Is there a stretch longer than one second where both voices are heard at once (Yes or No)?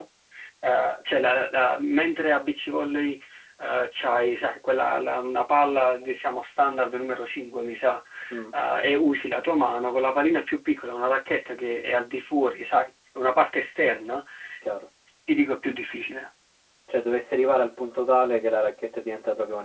No